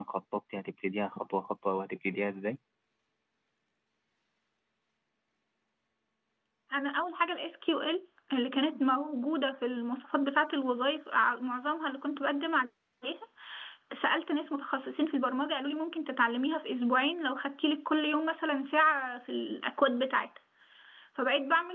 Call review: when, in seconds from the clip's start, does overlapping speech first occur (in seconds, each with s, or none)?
none